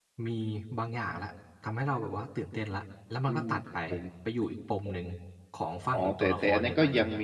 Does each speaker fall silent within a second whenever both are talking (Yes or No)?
No